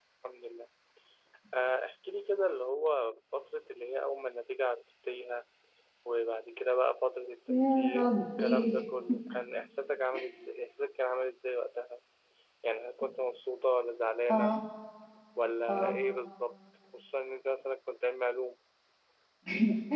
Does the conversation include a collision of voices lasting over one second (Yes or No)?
Yes